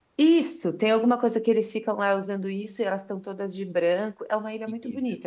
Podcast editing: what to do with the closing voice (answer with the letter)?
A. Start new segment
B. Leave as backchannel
A